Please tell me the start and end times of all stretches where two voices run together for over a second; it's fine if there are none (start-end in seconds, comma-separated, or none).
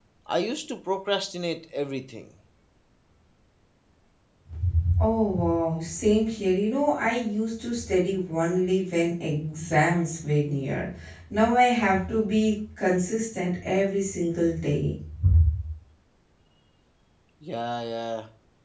none